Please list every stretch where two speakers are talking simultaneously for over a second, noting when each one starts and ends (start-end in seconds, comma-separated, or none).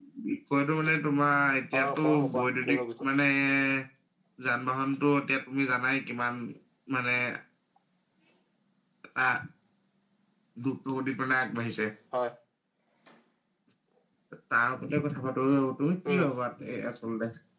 1.8-3.1